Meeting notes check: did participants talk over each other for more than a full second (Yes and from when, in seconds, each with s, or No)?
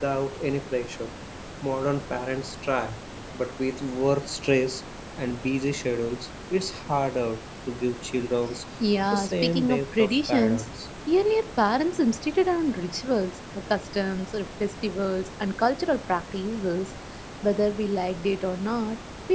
Yes, from 9.1 s